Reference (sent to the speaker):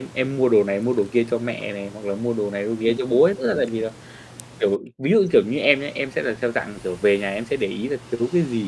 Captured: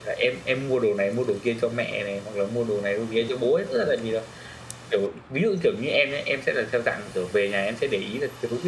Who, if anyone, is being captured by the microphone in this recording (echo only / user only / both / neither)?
echo only